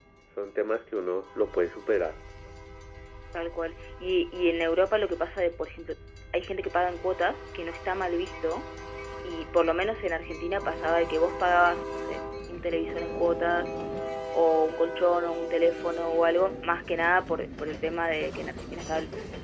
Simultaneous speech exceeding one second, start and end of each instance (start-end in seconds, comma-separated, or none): none